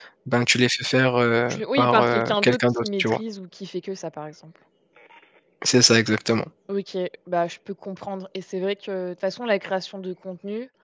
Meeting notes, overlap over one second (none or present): present